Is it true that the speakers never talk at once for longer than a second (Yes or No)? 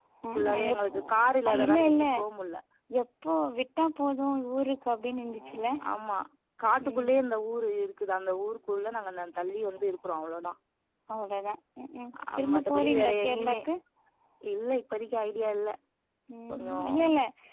No